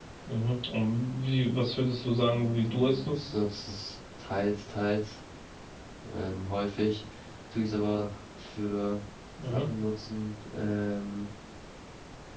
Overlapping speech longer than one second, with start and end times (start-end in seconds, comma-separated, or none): 2.1-3.4